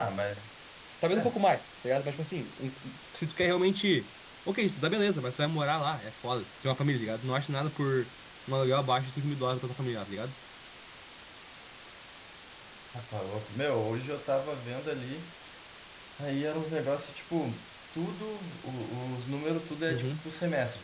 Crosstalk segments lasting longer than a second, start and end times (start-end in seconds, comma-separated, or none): none